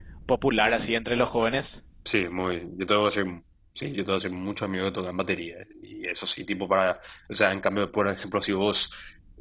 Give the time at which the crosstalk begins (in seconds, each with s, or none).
none